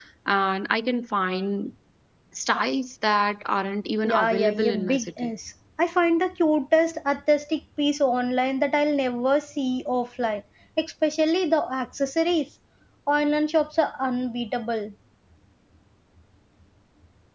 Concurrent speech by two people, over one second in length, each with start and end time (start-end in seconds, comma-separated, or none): 4.0-5.3